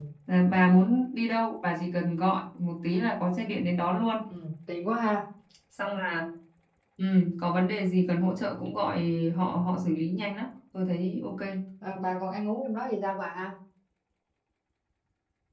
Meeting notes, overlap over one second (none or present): none